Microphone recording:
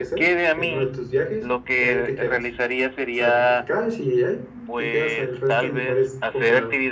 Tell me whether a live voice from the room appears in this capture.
Yes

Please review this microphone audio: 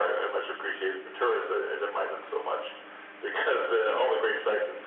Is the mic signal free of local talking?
Yes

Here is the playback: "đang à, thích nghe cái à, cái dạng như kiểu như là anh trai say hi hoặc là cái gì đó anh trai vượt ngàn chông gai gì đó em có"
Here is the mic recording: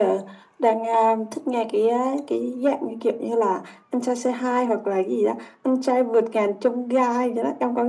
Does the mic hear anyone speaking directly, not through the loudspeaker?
No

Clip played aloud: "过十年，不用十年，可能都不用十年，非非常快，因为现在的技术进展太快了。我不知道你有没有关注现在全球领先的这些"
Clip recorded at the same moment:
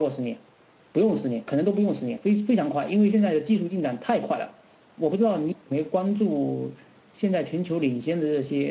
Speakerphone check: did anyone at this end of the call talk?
No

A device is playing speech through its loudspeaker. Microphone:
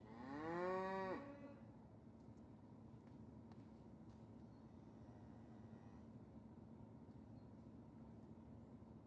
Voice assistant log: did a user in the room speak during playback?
No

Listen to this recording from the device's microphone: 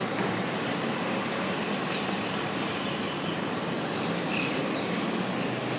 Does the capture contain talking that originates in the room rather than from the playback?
No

